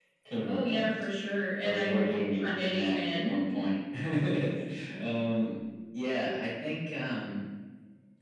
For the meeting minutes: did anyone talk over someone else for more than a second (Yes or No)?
Yes